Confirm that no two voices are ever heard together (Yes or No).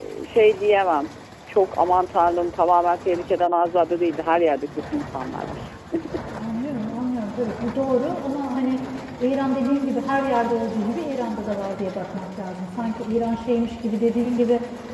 Yes